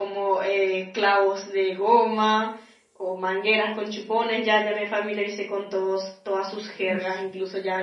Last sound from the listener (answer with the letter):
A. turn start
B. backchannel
B